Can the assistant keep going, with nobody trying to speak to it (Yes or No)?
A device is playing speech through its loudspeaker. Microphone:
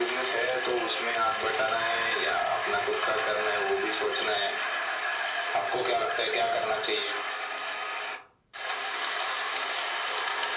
Yes